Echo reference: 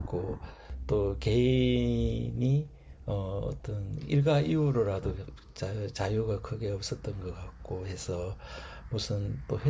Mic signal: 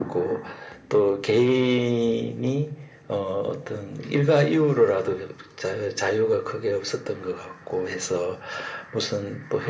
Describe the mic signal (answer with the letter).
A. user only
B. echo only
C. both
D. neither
B